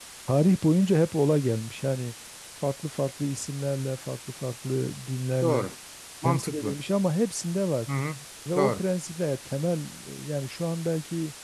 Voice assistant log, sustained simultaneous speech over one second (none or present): none